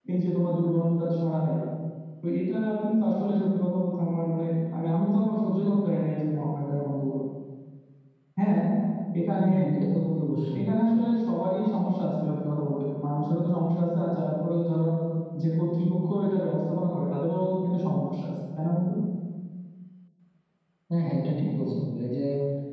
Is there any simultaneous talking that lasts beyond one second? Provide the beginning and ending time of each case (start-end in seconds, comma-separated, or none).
none